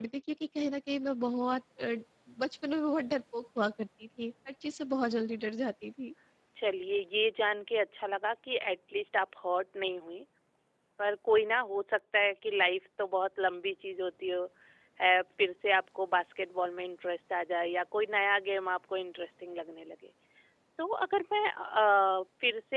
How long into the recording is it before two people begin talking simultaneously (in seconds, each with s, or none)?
none